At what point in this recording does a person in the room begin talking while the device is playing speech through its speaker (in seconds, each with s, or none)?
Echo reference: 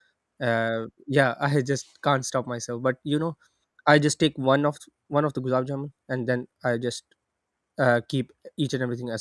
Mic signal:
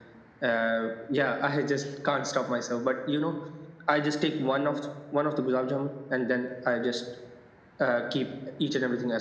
none